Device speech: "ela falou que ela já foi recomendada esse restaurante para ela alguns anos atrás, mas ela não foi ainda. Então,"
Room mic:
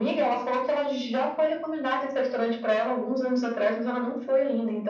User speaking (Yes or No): No